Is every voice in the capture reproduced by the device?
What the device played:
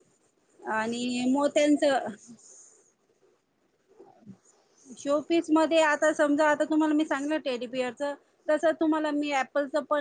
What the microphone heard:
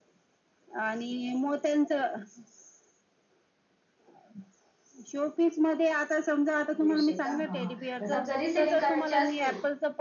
No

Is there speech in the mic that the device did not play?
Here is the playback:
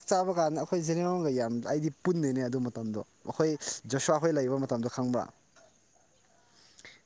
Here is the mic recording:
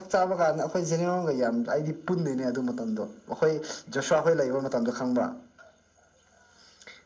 No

